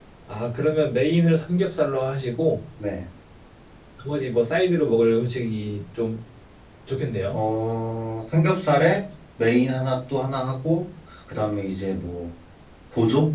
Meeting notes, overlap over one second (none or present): none